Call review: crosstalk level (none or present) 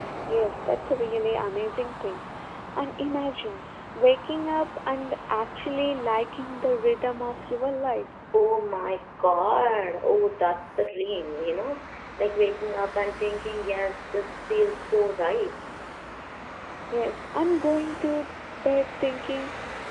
none